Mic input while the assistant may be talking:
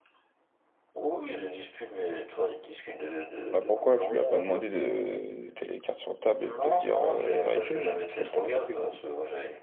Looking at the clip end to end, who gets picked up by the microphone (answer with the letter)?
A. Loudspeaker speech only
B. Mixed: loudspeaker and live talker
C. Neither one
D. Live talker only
B